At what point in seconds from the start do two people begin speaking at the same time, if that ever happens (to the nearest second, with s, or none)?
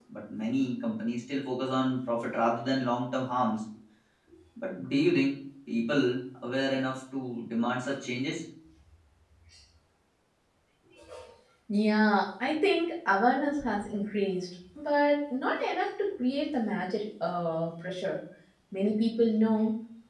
none